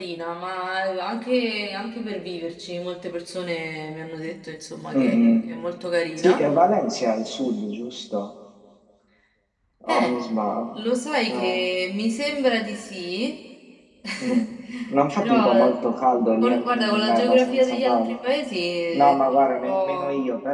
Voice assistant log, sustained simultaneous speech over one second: present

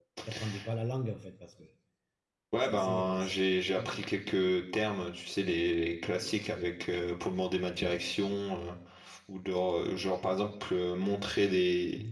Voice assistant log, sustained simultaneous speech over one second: present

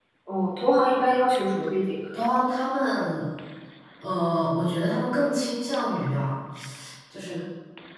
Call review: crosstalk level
none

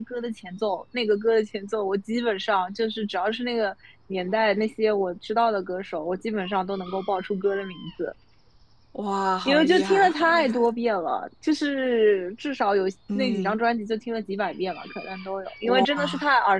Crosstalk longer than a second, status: present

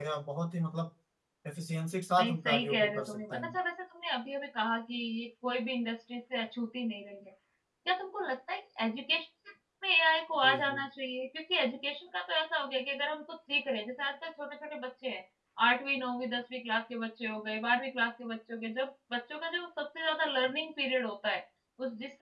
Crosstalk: present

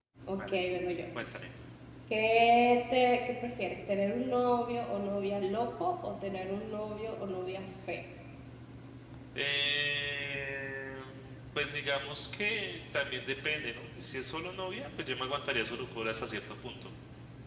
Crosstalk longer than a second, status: none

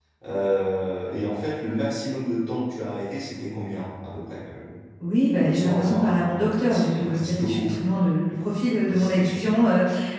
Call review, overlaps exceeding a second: present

